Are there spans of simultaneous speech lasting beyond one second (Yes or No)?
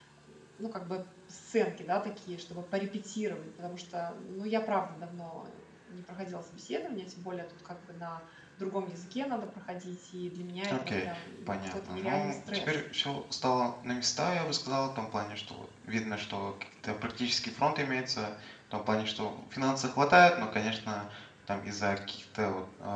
Yes